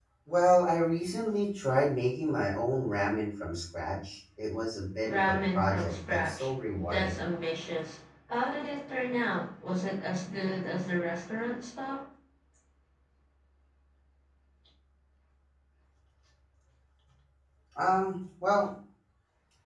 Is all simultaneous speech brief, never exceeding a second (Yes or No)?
No